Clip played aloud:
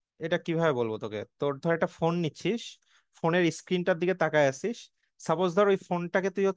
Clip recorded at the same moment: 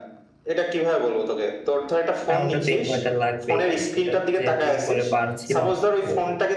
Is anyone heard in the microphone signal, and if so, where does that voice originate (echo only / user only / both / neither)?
both